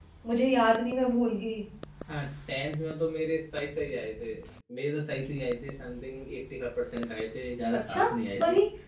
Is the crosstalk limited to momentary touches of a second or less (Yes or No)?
Yes